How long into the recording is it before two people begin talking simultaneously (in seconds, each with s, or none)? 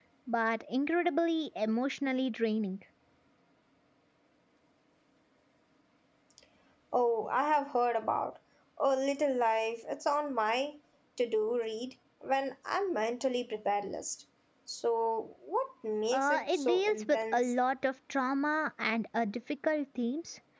16.1 s